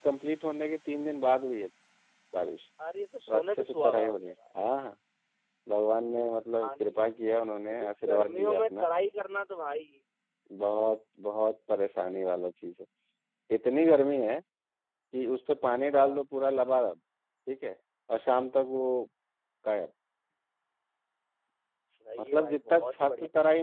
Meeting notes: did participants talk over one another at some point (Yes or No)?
Yes